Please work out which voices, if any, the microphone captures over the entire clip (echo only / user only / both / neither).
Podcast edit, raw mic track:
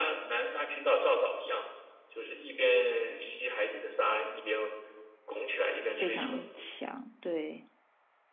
both